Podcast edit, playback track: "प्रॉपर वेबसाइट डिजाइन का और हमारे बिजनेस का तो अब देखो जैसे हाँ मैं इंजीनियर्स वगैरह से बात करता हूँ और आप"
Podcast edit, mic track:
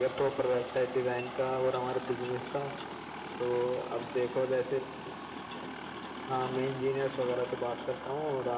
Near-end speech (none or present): none